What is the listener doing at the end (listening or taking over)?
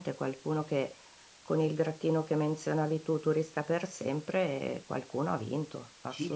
taking over